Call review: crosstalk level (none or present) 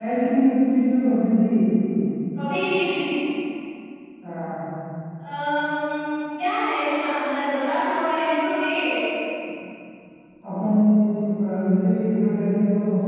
none